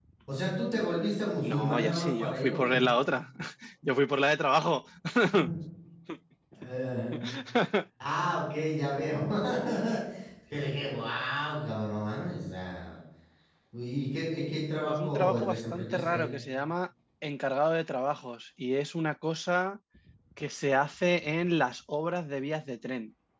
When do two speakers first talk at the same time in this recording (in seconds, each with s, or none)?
1.4 s